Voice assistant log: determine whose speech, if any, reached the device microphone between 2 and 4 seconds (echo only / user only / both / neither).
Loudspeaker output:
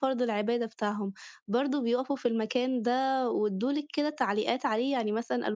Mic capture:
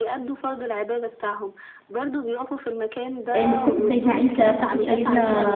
both